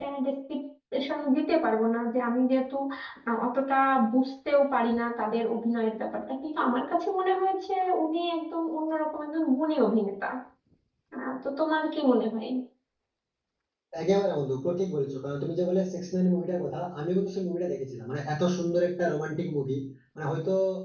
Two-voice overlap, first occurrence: none

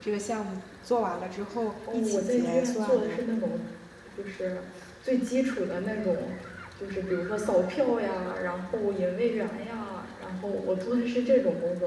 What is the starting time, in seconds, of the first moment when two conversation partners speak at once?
1.9 s

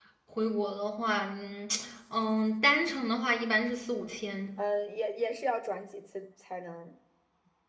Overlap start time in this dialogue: none

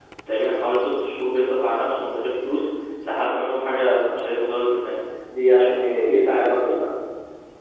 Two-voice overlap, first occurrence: none

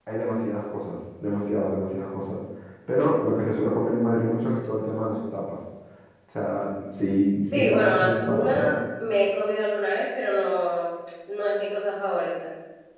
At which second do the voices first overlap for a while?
7.4 s

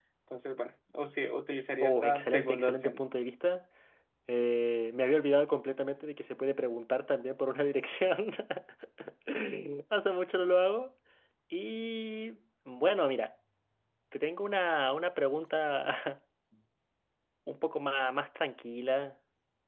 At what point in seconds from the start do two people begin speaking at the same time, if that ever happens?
1.8 s

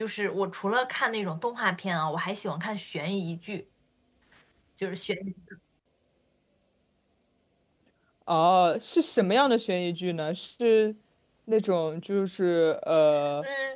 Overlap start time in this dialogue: none

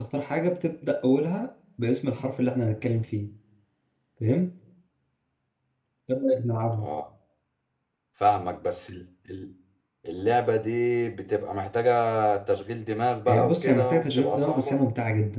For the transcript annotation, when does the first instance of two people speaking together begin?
13.3 s

